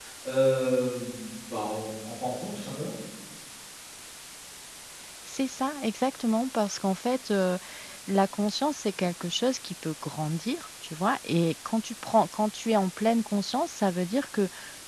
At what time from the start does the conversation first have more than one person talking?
none

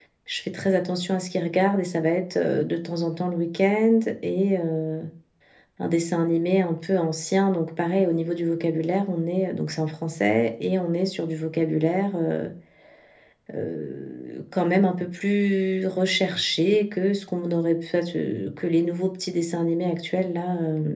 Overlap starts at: none

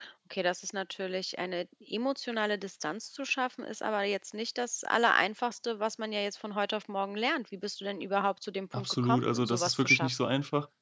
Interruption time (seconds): 9 s

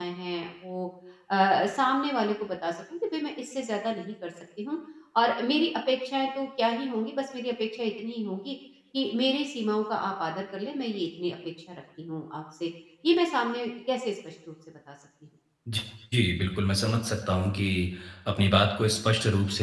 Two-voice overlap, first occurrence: none

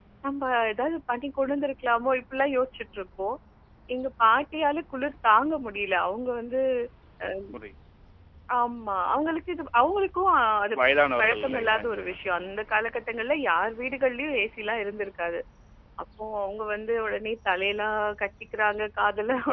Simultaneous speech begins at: 11 s

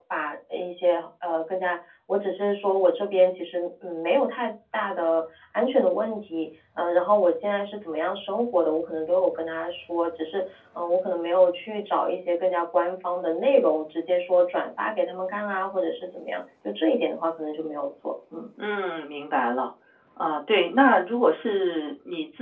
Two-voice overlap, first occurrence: none

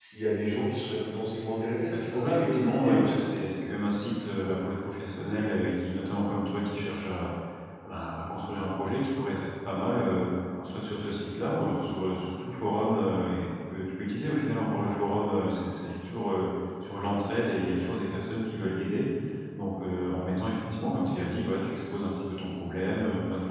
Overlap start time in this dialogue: 2 s

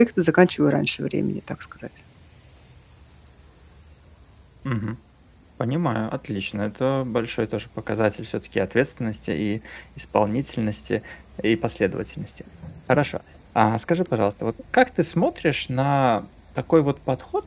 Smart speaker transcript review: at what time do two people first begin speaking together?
none

